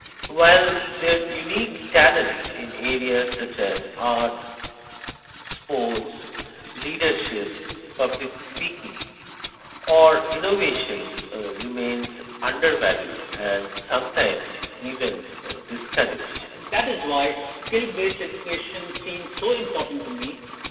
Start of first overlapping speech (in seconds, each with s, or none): none